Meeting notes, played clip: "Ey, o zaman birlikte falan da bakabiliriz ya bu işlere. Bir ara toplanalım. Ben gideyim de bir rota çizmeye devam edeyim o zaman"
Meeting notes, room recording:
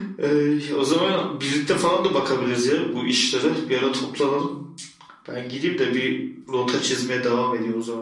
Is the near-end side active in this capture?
No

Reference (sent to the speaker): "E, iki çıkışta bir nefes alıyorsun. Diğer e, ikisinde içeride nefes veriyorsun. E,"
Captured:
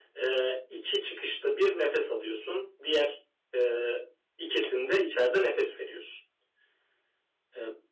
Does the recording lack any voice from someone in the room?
Yes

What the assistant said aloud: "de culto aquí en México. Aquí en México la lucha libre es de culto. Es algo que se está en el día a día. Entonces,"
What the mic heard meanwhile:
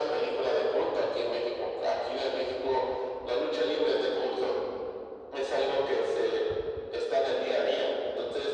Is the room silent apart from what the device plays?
Yes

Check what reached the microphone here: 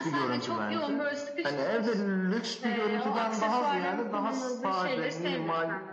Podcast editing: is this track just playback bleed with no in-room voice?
Yes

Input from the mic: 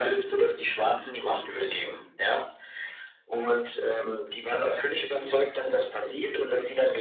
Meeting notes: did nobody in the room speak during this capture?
Yes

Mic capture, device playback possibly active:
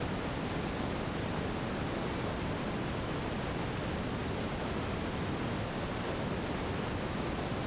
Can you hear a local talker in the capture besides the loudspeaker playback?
No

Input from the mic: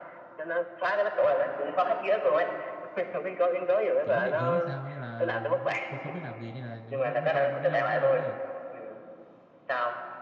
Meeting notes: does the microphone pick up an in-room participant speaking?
Yes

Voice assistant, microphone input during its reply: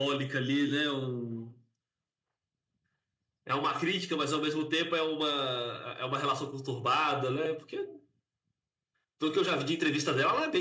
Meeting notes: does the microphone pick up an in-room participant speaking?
No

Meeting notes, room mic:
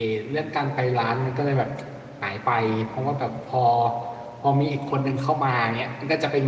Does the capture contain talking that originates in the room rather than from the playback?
Yes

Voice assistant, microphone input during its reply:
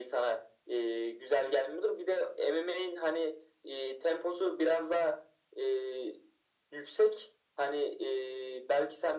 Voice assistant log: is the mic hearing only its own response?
Yes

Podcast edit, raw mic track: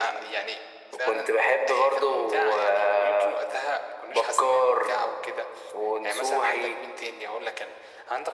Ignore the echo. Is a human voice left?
No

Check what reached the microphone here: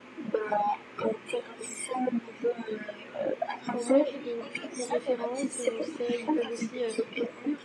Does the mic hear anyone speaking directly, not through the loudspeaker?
Yes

